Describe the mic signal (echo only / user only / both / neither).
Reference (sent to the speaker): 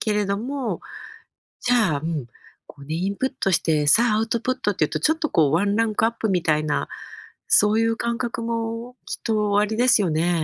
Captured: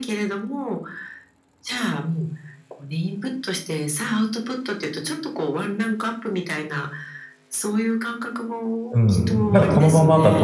both